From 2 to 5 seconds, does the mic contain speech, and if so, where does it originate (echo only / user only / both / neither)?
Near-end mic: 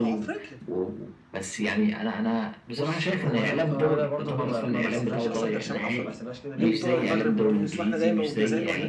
both